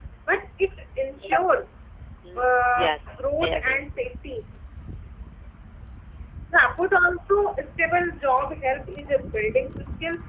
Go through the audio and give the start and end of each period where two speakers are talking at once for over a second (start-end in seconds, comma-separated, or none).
2.4-4.0